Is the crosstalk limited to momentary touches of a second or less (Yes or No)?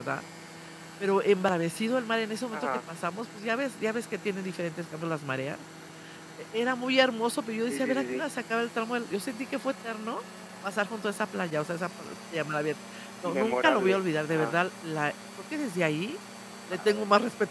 No